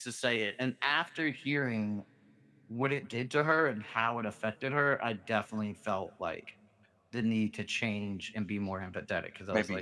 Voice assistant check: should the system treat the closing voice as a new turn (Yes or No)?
Yes